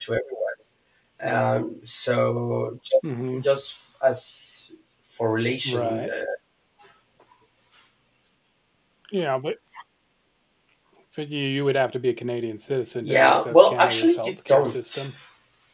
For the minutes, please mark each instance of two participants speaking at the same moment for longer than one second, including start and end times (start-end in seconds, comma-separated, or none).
13.0-15.0